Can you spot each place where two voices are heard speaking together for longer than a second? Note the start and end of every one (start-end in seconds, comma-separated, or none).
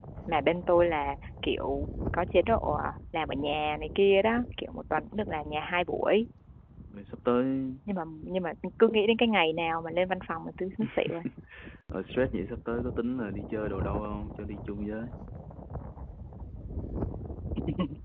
none